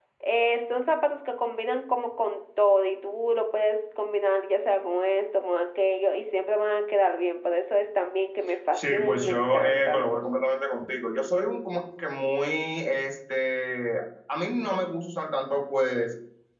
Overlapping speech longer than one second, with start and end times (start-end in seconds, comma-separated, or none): 8.7-10.1